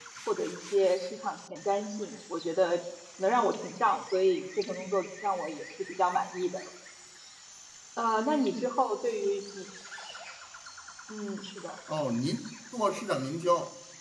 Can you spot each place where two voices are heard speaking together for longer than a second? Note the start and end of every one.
none

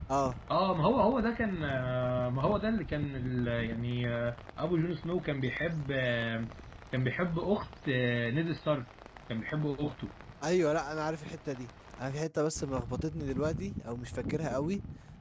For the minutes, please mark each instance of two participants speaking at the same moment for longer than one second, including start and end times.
none

